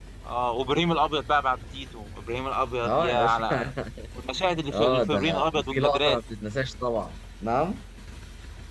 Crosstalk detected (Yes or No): Yes